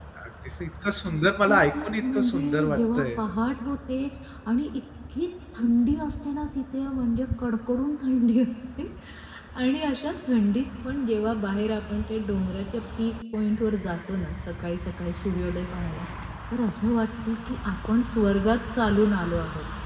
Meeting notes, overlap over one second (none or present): present